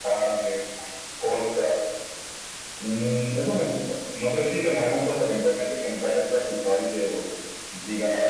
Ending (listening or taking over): taking over